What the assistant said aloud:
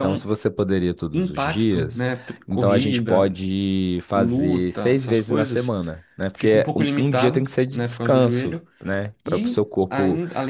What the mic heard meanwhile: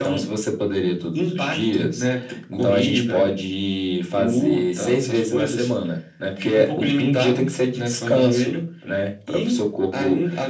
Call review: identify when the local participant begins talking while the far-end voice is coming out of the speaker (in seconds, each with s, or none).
none